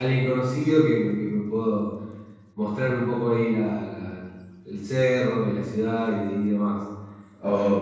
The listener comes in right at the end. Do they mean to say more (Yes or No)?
No